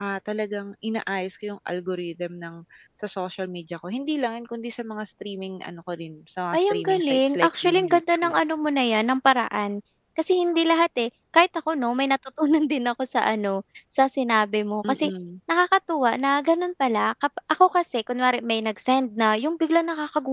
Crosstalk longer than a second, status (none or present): present